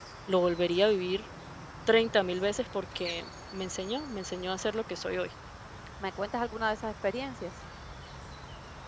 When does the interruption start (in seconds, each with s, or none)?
none